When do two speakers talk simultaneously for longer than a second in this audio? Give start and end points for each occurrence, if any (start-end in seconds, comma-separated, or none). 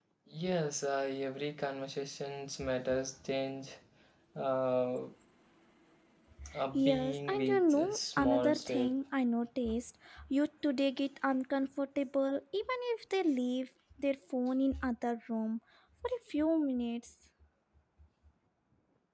6.7-9.0